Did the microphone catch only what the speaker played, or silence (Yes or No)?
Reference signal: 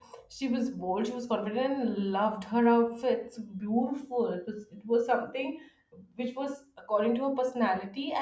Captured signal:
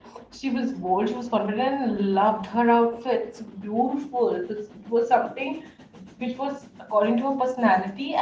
Yes